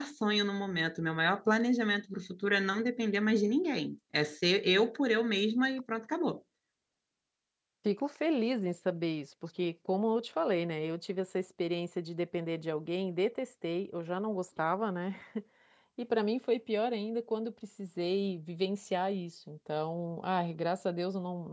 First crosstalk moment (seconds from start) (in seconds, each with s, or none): none